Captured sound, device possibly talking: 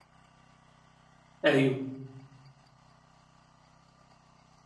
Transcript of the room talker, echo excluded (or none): أيوه.